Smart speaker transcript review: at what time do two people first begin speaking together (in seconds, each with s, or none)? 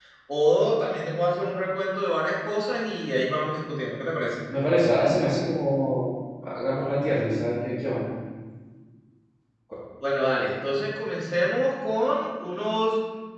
none